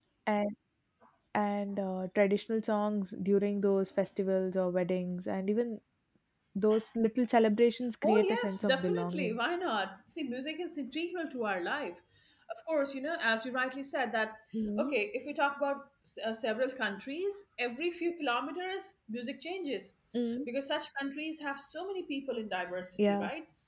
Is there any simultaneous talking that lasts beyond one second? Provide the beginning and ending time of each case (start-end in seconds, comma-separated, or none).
8.0-9.4